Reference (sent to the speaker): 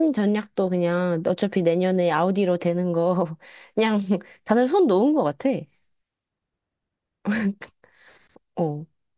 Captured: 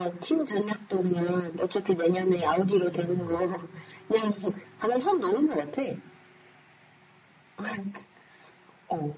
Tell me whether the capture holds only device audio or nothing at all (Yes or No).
No